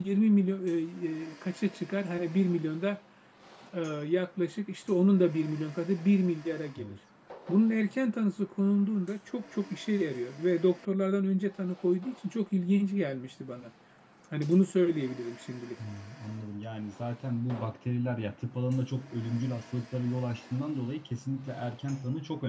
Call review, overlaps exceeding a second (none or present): none